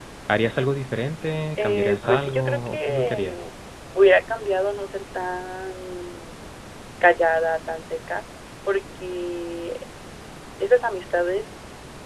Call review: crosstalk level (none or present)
present